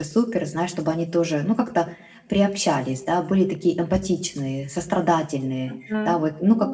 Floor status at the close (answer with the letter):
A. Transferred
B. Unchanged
A